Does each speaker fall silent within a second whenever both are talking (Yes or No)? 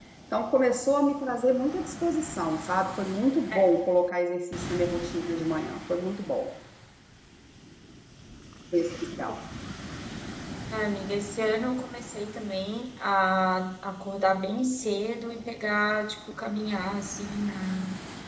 Yes